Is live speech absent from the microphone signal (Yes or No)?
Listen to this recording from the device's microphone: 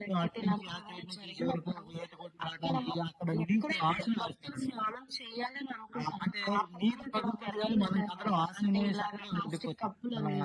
Yes